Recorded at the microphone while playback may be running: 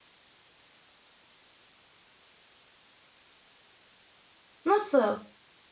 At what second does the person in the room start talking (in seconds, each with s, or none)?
4.7 s